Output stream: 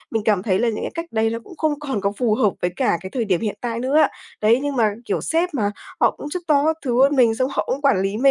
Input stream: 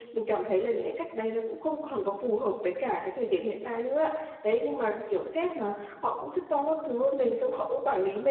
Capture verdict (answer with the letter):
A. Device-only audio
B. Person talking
A